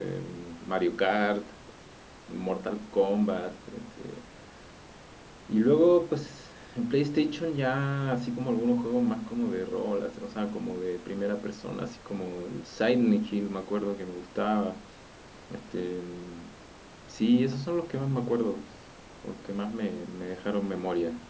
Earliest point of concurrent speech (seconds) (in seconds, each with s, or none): none